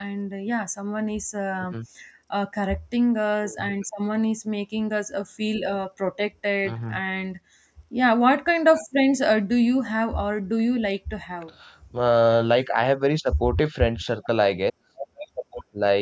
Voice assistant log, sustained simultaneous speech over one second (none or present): none